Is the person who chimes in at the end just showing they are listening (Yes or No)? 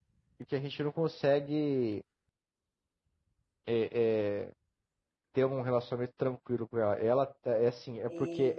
Yes